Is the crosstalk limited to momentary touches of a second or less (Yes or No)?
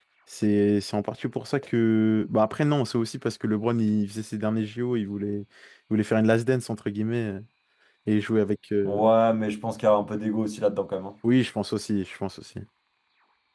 Yes